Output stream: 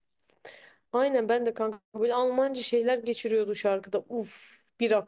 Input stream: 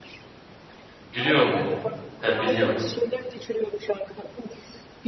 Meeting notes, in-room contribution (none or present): present